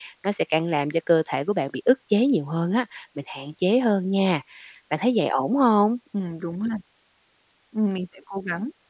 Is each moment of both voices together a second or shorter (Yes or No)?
Yes